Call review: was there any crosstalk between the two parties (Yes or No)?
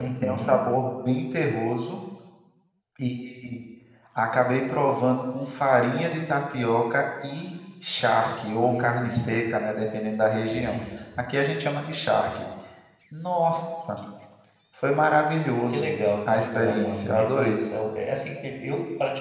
Yes